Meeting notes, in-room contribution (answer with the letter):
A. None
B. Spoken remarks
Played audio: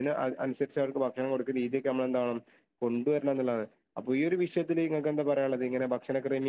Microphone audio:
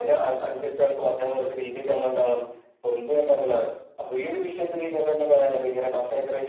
A